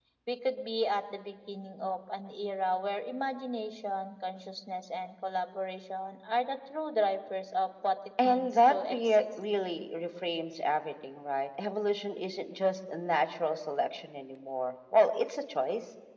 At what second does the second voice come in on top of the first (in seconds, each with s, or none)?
8.2 s